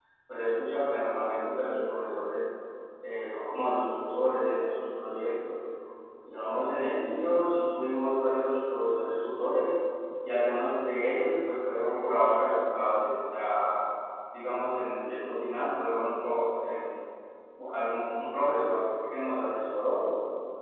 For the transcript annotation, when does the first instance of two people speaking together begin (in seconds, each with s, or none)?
none